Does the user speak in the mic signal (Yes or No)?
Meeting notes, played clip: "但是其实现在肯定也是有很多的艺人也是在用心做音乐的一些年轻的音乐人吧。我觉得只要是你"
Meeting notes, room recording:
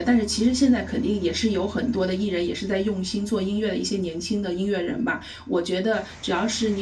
No